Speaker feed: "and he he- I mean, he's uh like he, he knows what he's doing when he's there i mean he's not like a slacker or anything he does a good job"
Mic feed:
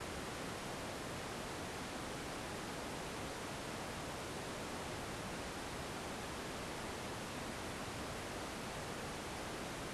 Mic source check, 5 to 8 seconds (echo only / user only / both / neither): neither